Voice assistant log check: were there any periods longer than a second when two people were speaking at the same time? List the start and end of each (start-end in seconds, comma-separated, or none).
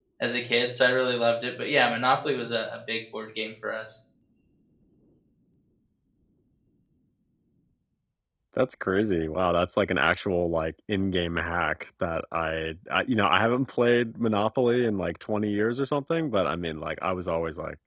none